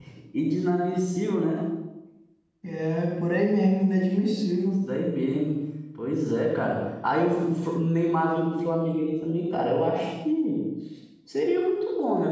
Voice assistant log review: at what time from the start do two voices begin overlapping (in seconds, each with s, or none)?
none